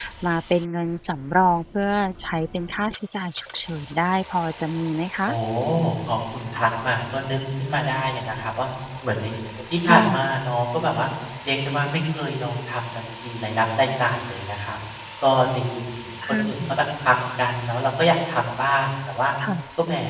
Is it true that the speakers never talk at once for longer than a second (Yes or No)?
Yes